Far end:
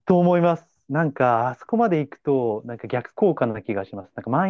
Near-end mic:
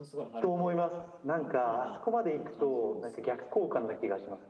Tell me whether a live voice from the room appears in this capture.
Yes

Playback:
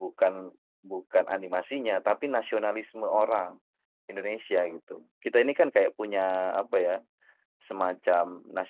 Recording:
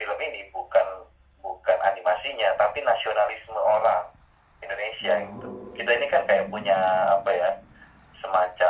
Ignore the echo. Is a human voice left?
Yes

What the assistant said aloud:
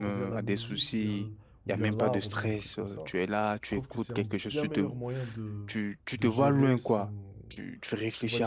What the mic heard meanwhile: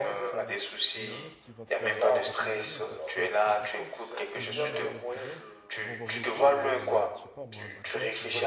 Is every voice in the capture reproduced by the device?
No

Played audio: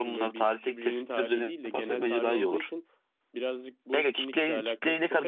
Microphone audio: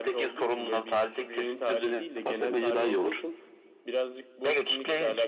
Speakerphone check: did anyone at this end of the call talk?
No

